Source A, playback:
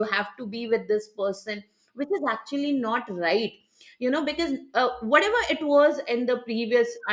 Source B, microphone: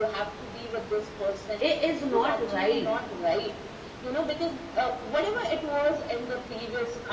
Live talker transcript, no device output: It is not right

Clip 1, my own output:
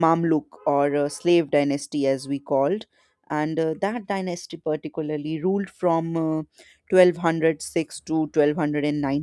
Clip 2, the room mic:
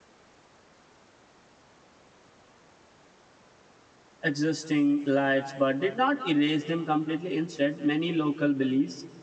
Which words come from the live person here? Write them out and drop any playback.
existing lights but did not erase them completely. Instead, many local beliefs

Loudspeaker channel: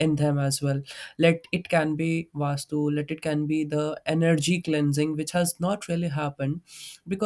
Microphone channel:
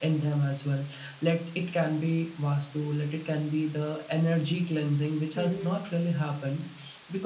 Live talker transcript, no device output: hmm

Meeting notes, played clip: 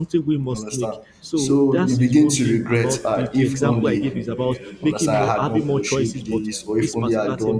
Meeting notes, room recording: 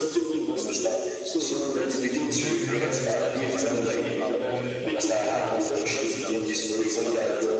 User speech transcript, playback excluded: you know, in when we started off, I mentioned uh, one big decision killer, which is fear.

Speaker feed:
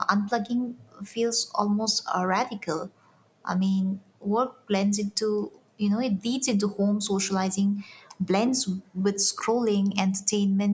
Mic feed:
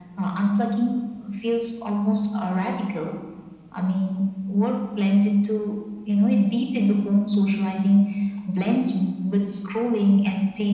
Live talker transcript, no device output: none

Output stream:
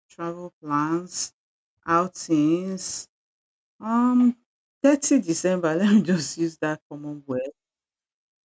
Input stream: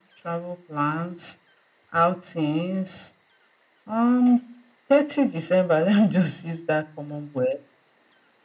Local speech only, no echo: none

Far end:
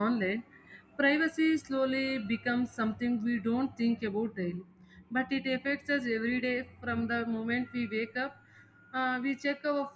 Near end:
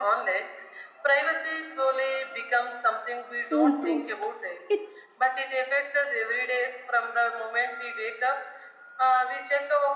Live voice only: foolproof. It

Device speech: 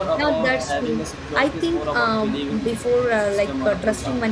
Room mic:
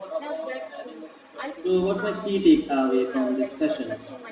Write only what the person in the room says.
so what's my key takeaway from this session

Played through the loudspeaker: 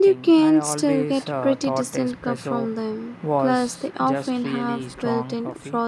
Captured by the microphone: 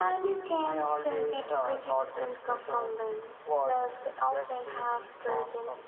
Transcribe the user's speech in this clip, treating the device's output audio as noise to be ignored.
none

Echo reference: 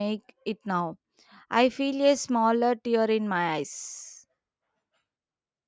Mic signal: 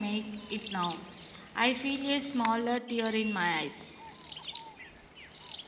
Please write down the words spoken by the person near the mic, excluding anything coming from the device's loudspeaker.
none

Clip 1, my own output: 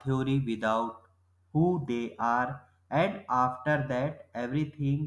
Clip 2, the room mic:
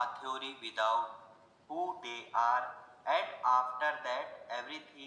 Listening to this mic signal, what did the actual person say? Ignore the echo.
none

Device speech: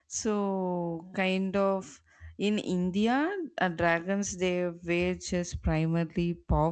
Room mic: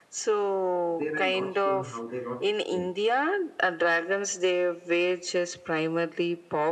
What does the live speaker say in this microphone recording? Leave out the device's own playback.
they were not sure how they got extinct.

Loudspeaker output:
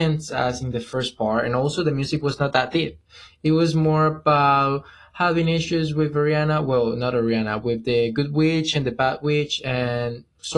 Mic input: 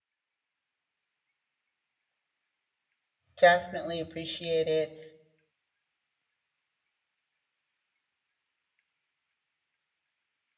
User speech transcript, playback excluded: definitely appreciate it.

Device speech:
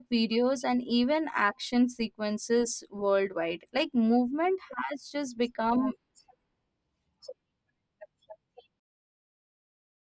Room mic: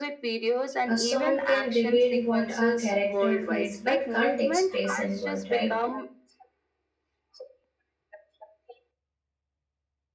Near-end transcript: A song can reveal what a character feels but can't express in word, right?

